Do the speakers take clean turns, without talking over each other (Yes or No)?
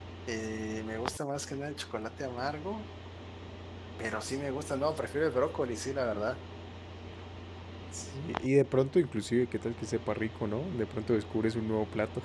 Yes